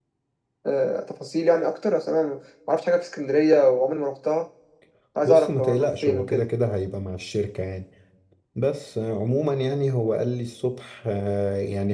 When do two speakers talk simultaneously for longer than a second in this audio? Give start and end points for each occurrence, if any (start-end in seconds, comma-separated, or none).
5.2-6.5